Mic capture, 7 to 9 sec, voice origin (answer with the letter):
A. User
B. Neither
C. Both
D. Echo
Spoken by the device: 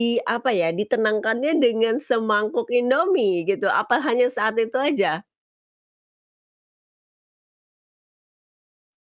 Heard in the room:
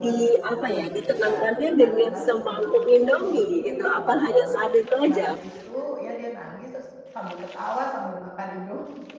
A